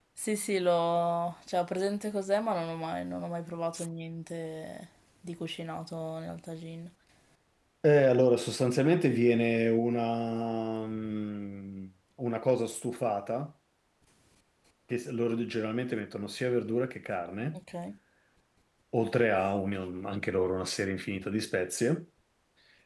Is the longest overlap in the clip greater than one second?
No

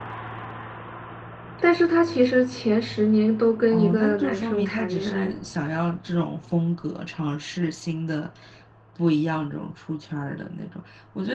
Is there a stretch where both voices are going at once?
Yes, from 3.7 s

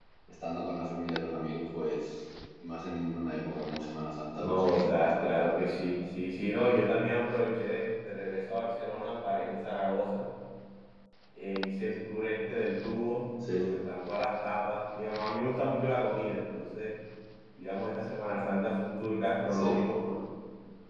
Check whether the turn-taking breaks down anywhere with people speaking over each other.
Yes, from 4.4 s

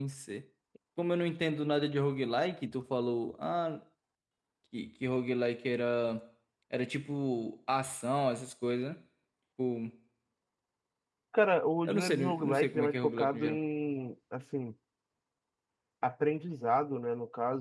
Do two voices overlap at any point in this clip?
Yes, from 11.8 s

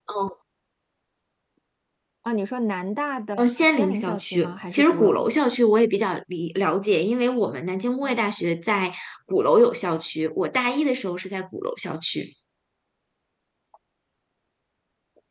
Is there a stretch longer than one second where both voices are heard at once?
Yes, from 3.4 s

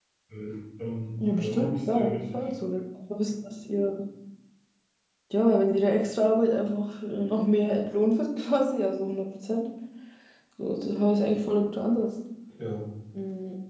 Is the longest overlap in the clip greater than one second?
Yes, from 1.2 s

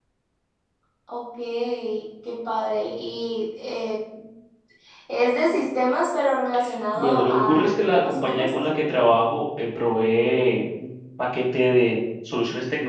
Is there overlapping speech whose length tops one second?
Yes, from 7.0 s

